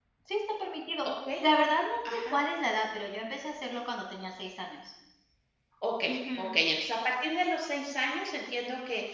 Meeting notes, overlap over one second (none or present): none